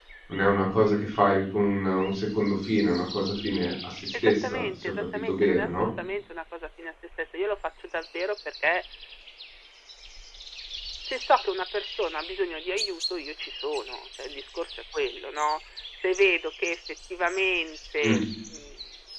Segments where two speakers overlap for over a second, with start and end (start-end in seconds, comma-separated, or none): 4.1-5.9